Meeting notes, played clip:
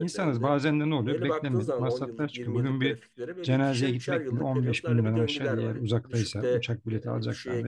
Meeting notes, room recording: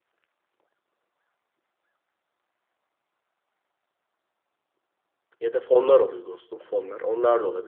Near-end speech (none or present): present